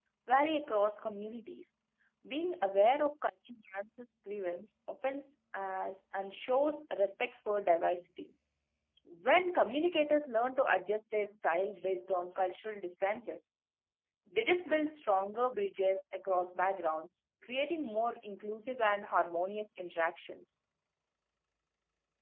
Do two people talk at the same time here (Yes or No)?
No